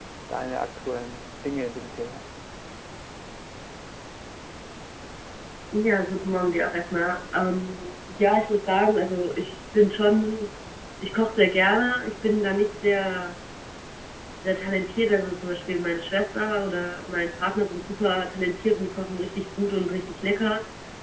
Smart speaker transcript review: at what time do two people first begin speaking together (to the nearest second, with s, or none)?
none